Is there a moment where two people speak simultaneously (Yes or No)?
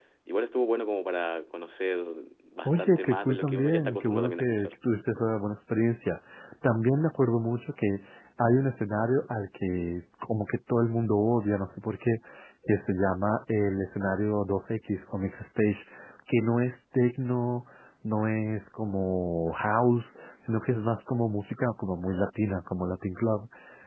Yes